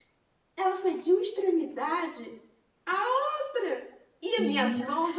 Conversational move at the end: listening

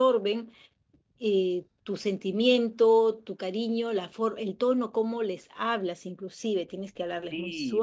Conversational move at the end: taking over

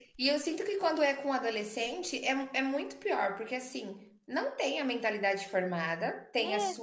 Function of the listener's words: listening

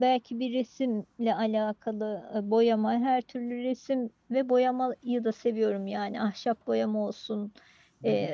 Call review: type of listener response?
listening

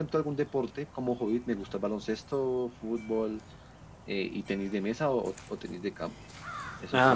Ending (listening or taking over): listening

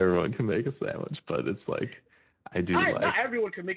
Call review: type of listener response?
taking over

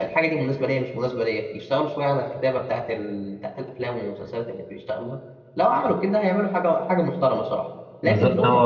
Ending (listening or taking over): taking over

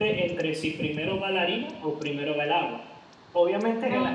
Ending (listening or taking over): listening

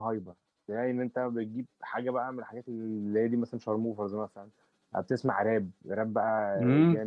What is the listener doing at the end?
taking over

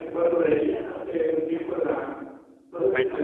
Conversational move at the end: listening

